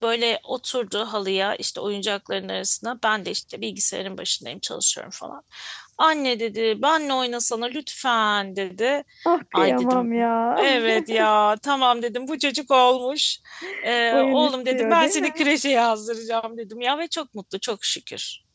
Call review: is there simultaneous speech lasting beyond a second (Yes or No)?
Yes